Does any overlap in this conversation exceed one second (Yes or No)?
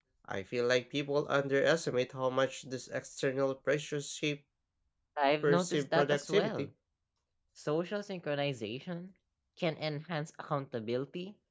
Yes